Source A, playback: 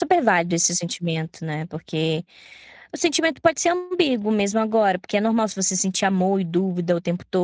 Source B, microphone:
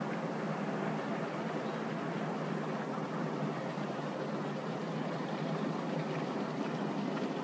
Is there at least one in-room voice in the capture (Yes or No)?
No